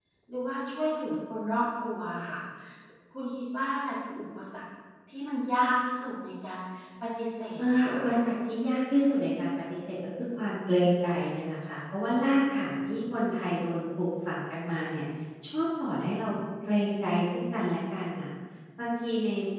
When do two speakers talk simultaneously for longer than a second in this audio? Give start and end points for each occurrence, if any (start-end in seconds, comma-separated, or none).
none